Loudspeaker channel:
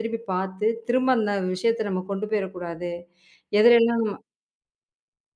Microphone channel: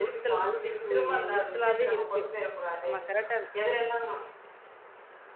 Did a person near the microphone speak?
Yes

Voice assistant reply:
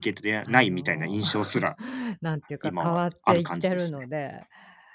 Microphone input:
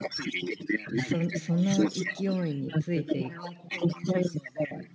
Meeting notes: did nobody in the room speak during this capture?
No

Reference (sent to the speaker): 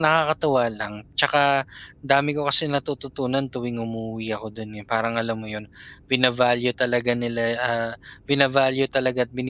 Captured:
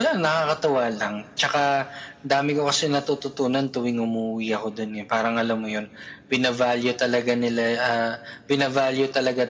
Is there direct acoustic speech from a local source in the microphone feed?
No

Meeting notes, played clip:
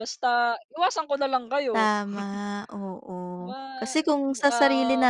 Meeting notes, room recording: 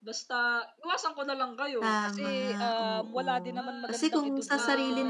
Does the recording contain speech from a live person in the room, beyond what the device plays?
Yes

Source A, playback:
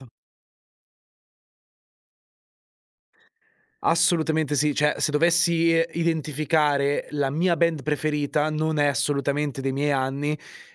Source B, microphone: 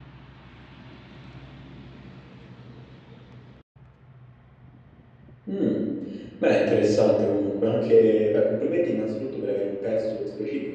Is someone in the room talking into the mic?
Yes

